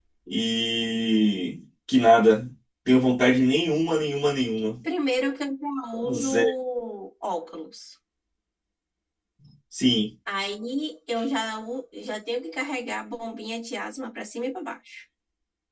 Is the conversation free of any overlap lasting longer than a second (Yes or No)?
Yes